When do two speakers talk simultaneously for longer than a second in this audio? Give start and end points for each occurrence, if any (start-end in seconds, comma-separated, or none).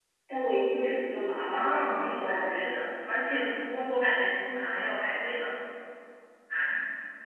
1.5-2.9